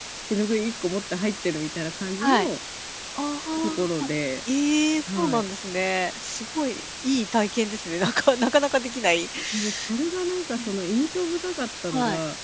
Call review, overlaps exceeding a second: none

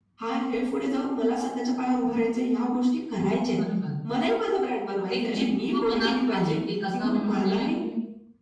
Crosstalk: present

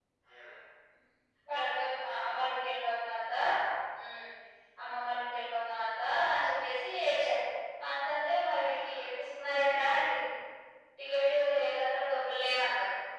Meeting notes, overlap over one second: none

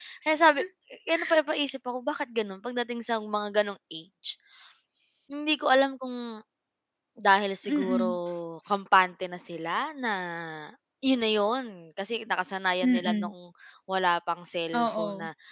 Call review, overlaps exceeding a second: none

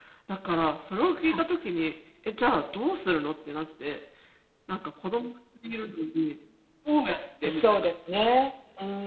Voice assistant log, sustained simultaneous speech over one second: none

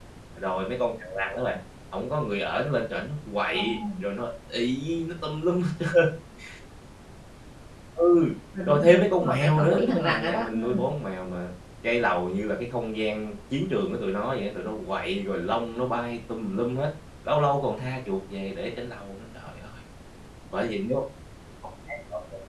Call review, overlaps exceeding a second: present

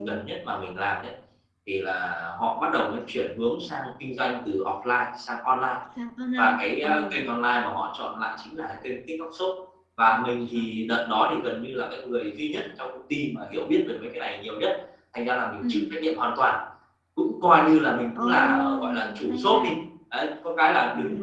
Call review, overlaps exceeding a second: present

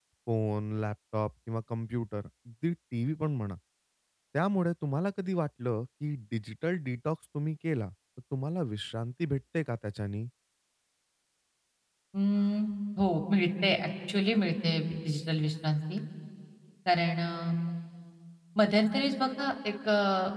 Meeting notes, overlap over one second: none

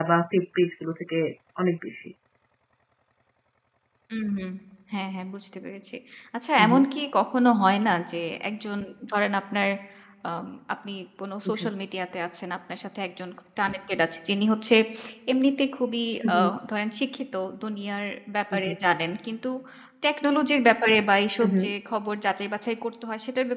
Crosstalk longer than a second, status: none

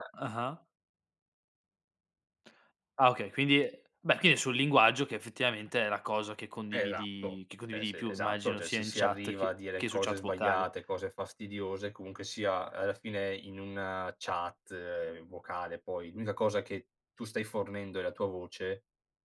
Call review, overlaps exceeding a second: present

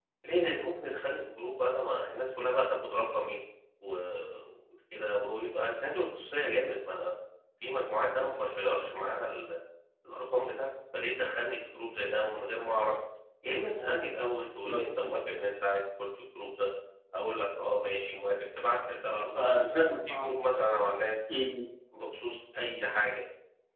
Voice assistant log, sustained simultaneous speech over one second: none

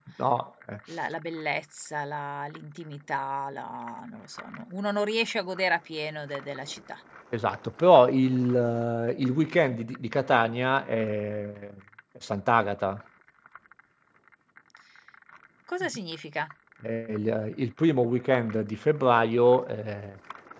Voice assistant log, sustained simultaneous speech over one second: none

